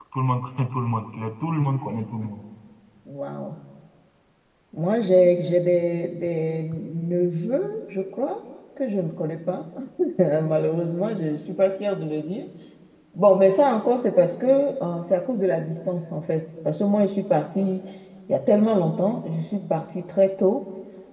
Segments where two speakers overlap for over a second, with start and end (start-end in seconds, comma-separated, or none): none